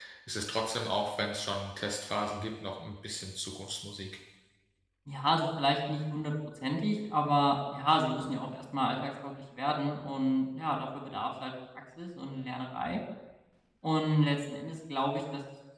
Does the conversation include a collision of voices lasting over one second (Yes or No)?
No